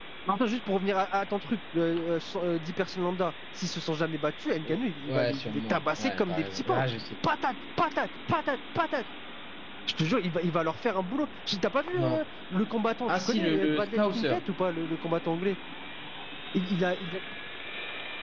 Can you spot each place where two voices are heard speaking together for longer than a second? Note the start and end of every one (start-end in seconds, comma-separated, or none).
4.6-6.8, 13.1-14.4